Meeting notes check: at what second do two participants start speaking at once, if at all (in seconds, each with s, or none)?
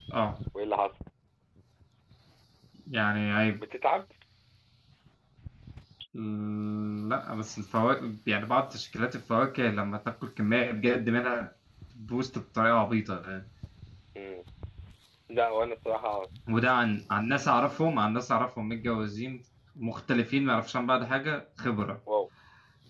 none